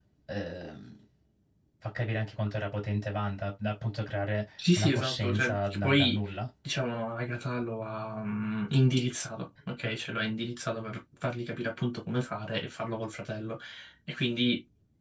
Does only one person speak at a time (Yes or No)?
No